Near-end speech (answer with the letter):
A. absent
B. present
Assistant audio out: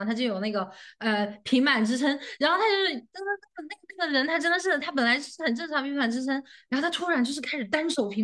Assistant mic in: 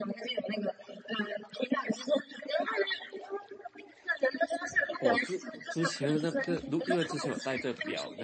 B